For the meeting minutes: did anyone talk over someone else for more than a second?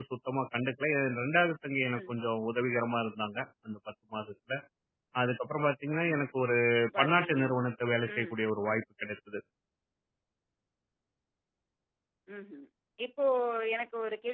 No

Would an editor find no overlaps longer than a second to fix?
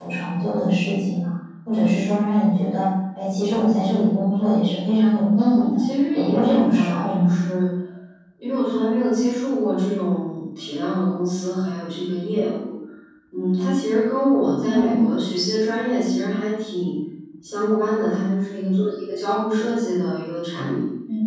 No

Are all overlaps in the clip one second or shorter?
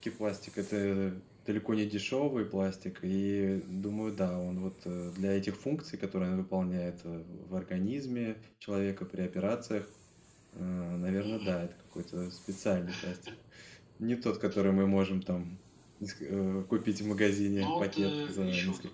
No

